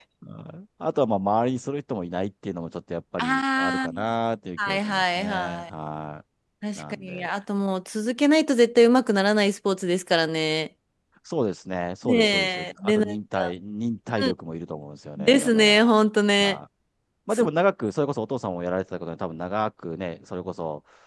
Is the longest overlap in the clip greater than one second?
Yes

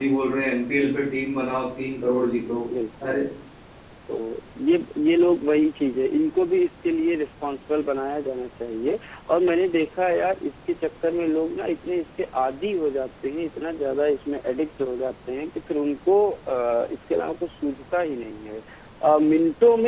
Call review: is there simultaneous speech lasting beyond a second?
No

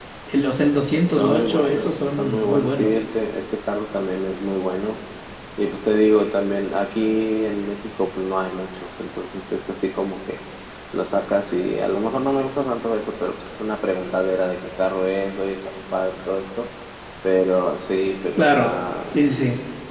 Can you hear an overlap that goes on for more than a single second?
Yes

